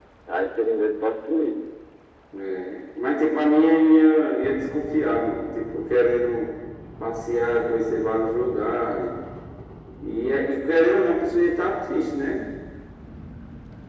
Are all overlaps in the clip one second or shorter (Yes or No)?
Yes